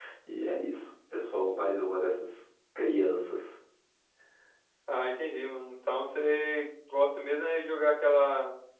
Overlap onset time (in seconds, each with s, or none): none